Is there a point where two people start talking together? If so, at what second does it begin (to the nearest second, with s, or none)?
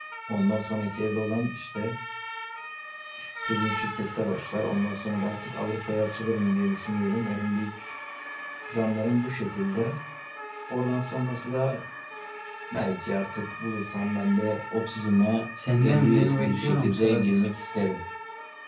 16 s